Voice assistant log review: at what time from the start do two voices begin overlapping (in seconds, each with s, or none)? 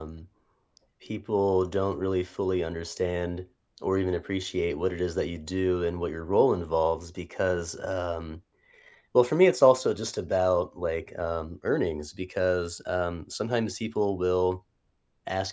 none